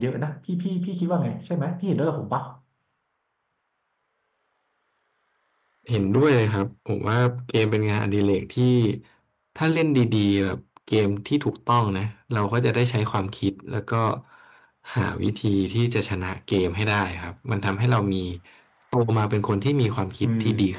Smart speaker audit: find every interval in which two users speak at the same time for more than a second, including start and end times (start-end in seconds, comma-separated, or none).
none